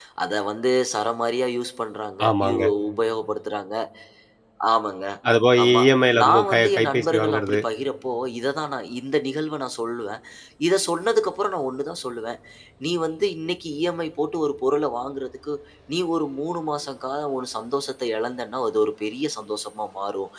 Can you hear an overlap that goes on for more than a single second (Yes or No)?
Yes